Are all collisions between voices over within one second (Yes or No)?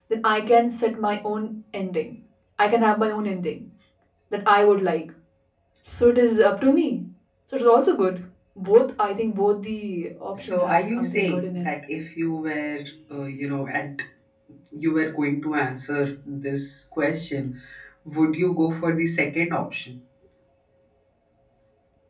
No